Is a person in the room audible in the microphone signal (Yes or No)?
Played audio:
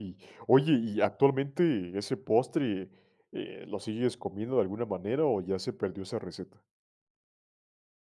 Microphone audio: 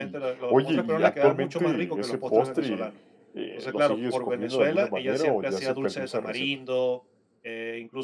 Yes